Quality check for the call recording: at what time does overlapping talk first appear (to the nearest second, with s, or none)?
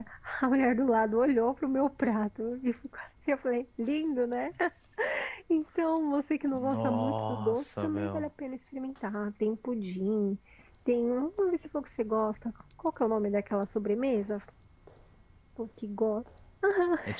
7 s